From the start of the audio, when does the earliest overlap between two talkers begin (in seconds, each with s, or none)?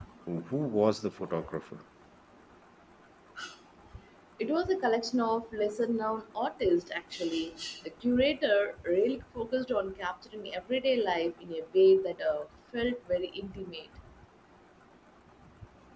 none